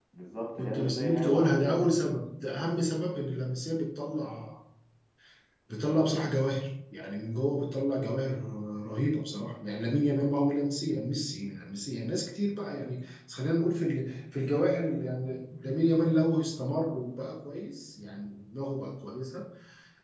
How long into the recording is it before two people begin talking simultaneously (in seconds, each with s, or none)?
0.6 s